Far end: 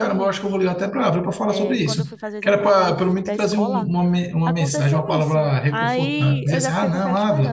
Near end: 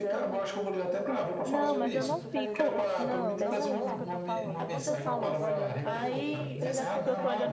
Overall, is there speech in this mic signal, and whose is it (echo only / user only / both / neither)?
both